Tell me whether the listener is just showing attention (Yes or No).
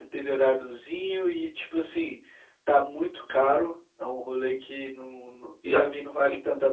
Yes